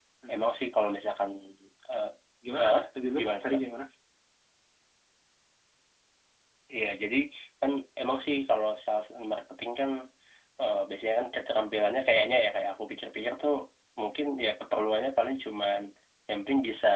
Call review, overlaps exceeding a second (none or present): none